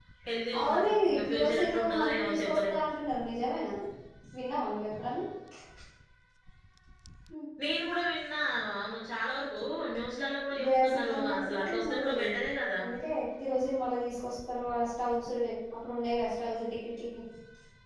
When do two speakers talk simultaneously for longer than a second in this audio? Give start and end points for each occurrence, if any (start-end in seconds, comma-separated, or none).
0.6-2.7, 10.6-12.1